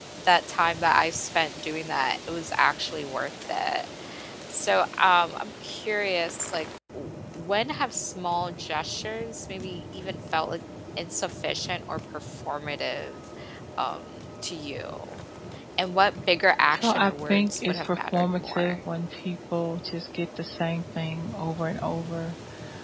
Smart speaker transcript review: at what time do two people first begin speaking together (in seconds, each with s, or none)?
16.7 s